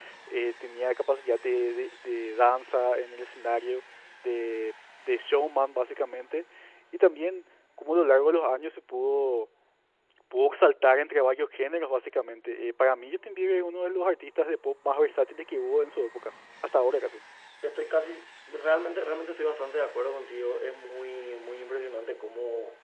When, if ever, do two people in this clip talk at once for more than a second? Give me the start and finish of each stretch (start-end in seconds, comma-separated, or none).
none